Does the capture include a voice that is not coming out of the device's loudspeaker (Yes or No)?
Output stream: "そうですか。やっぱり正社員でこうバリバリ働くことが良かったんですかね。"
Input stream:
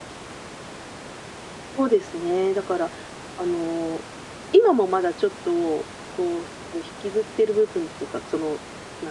Yes